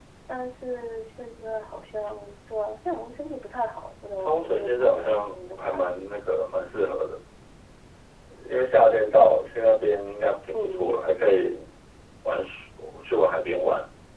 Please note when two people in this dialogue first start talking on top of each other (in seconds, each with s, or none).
4.2 s